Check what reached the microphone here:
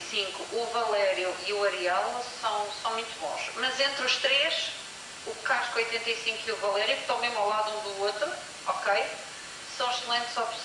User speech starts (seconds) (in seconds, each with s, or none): none